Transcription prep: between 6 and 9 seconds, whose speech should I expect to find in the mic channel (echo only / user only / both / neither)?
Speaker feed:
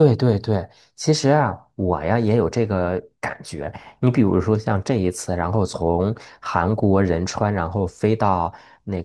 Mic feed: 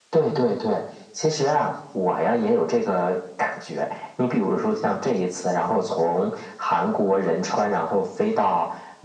echo only